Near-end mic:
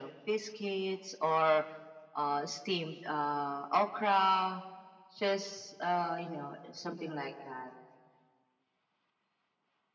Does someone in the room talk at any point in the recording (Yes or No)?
No